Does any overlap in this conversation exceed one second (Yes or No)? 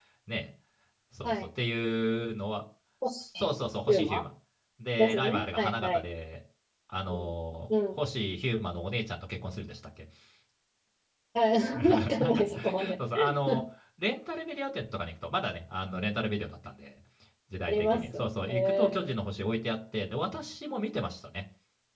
Yes